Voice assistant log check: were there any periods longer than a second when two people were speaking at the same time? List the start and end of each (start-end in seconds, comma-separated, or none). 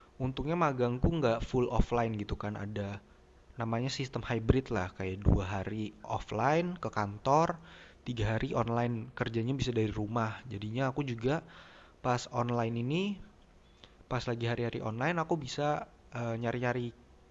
none